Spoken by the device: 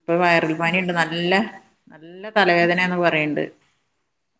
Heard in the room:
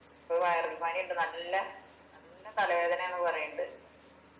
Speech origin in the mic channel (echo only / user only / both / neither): echo only